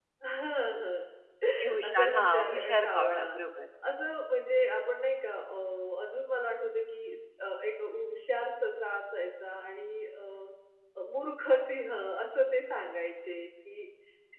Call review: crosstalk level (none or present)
present